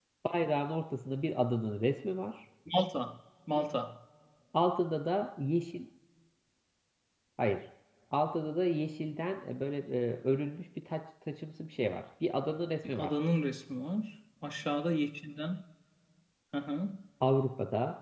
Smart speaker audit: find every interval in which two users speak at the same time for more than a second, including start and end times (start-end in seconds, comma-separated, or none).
none